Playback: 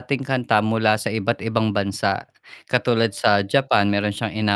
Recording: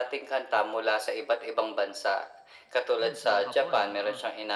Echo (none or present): present